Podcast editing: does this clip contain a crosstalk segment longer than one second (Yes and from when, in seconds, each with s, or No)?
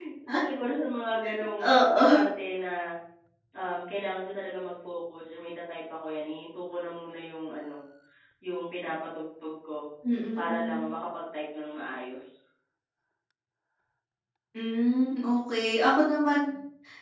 No